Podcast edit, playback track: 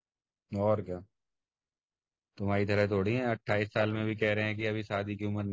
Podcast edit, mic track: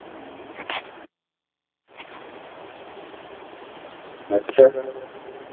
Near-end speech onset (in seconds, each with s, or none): 4.3 s